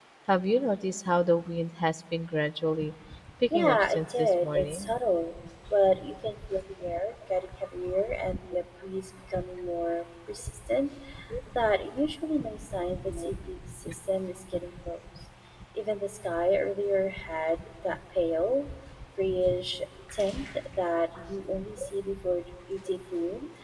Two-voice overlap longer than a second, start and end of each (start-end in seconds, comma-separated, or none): 3.5-4.9